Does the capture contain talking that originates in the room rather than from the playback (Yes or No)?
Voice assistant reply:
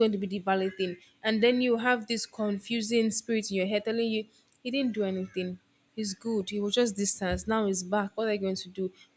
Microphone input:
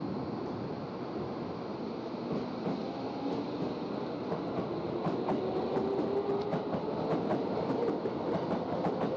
No